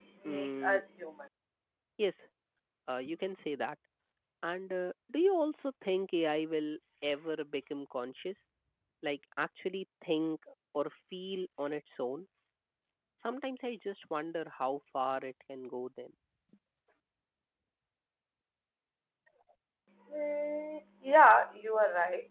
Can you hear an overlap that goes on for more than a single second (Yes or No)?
No